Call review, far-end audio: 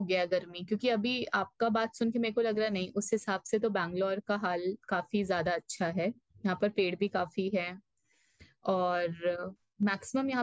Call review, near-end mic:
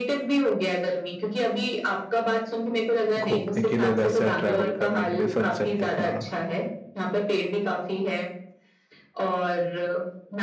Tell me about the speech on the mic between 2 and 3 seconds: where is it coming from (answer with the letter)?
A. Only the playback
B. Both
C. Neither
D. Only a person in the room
A